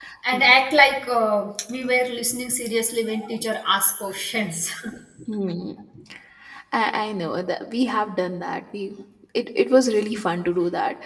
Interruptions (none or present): none